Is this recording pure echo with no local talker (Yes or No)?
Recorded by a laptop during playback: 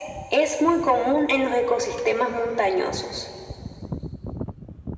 Yes